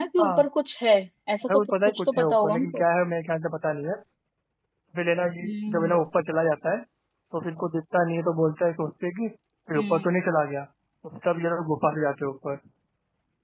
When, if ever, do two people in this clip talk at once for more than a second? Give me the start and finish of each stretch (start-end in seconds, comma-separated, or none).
1.5-2.8